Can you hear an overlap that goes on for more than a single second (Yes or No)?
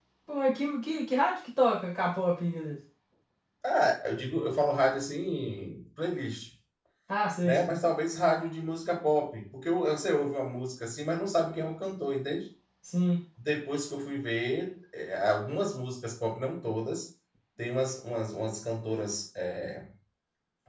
No